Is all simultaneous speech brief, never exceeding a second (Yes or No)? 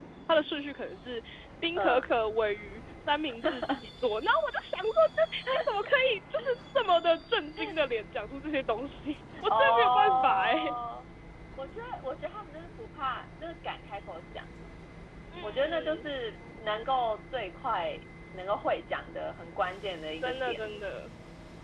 No